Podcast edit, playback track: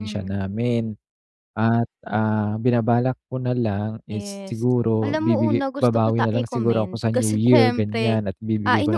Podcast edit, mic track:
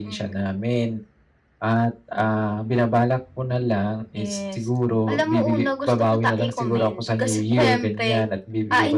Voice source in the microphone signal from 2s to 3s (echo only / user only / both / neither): echo only